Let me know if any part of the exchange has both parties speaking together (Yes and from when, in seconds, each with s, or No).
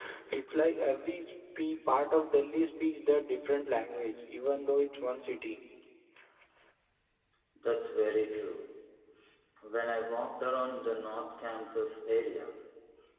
No